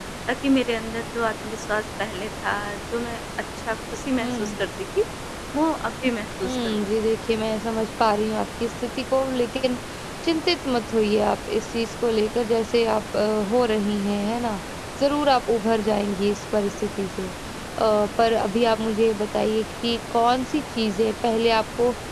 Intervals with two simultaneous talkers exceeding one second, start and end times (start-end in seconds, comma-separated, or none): none